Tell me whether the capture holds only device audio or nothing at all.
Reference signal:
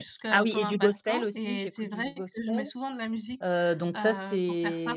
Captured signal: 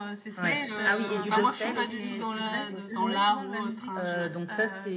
No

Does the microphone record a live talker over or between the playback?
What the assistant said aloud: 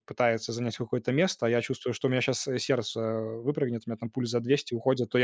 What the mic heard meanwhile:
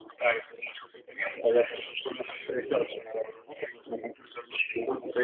No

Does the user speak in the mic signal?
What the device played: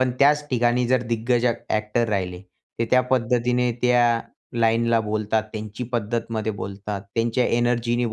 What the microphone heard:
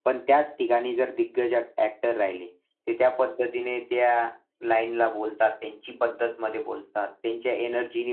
No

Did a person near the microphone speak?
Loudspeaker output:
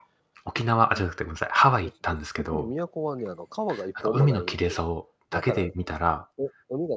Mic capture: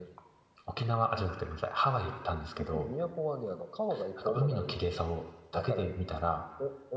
No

